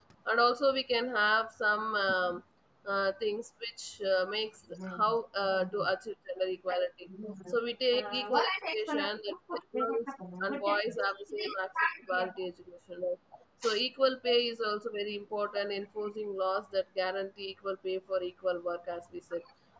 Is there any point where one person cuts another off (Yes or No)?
Yes